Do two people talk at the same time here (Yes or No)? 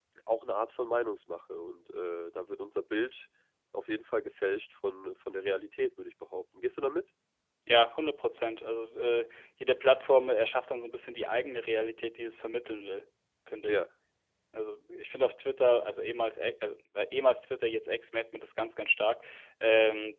No